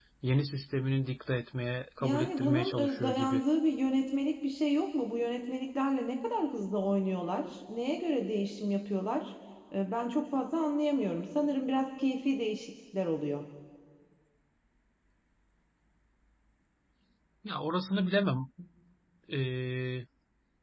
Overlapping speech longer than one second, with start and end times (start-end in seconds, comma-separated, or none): 2.0-3.4